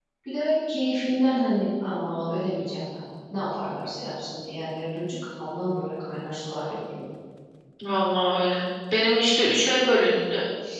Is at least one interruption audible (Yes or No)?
No